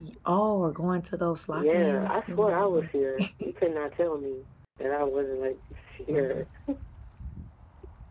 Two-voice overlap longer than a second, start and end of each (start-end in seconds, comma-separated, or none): 1.5-2.9